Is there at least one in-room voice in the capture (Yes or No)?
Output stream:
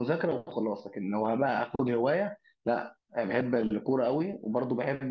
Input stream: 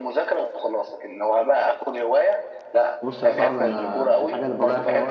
Yes